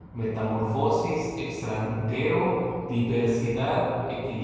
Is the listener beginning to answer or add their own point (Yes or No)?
No